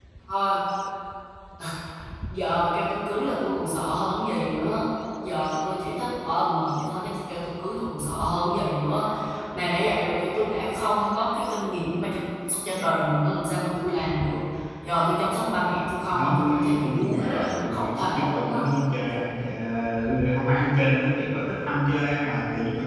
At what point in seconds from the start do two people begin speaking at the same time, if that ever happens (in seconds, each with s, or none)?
16.1 s